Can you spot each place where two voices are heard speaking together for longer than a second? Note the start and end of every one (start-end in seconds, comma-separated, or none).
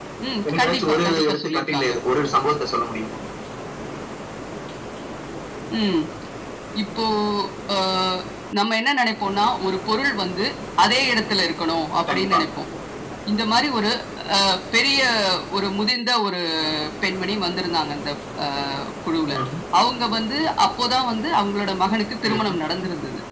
0.6-1.9